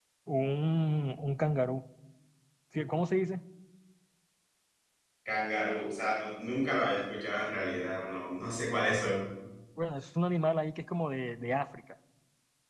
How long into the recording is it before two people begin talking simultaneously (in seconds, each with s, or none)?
none